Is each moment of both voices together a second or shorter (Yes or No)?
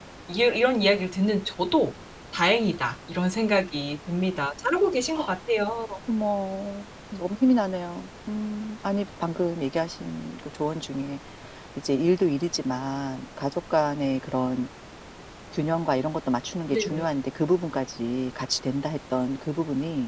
Yes